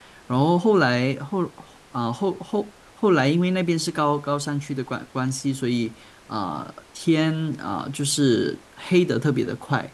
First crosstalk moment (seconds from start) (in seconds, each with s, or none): none